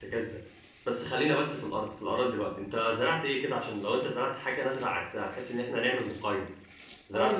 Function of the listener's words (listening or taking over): taking over